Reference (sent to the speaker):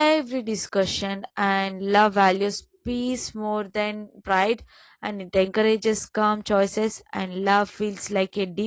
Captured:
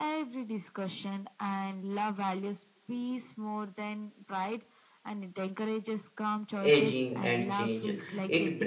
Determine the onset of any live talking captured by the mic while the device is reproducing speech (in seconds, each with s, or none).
6.6 s